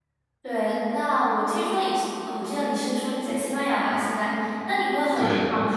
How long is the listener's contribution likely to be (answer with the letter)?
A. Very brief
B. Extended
A